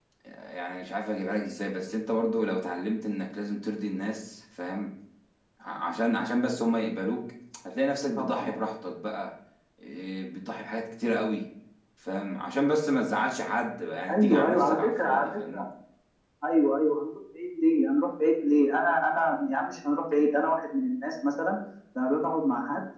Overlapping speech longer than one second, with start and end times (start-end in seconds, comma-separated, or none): 14.1-15.7